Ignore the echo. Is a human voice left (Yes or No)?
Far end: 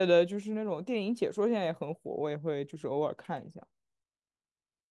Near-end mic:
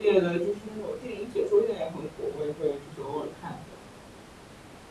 No